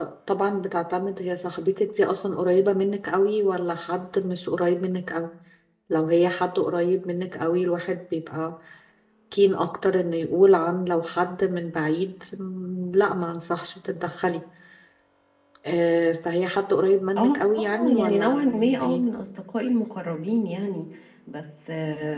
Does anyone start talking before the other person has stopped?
Yes, from 17.2 s

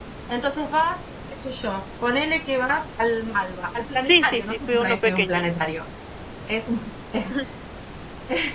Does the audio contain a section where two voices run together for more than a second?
Yes, from 4.0 s

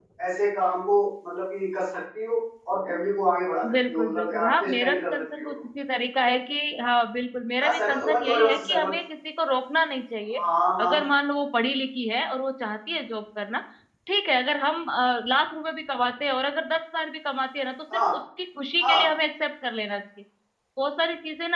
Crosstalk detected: Yes, from 3.7 s

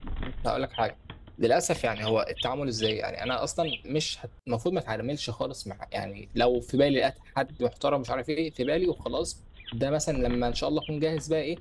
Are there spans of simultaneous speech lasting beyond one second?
No

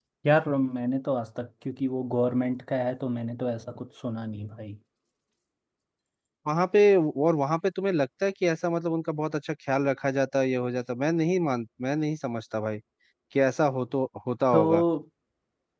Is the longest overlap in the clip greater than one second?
No

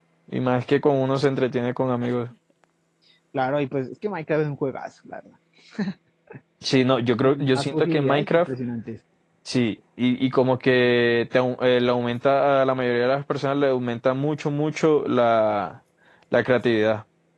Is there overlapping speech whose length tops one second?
Yes, from 7.2 s

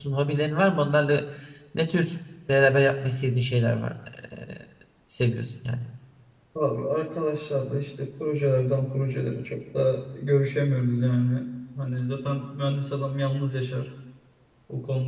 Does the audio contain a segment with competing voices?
No

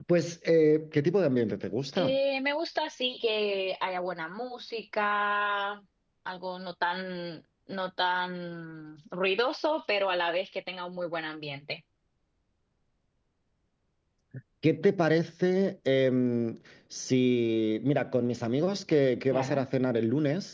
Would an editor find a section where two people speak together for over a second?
No

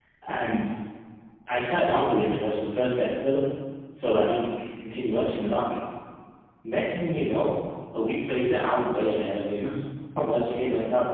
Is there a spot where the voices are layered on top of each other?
No

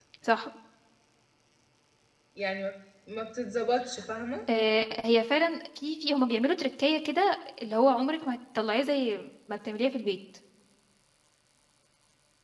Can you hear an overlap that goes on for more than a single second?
No

